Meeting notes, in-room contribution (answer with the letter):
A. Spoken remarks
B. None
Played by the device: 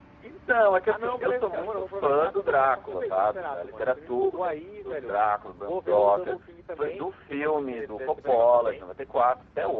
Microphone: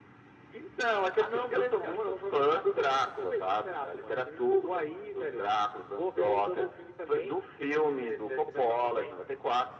B